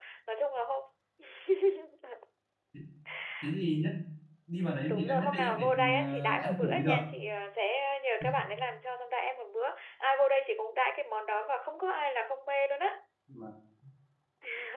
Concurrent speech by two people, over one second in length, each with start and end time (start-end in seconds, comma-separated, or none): 4.9-7.0